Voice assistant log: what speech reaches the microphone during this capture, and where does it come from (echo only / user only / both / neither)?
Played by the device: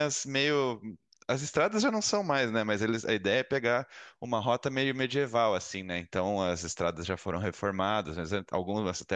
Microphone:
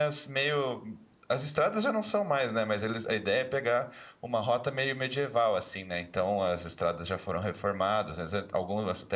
echo only